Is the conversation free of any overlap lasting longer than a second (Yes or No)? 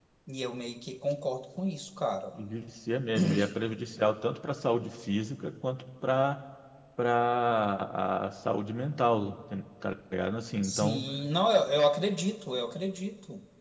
Yes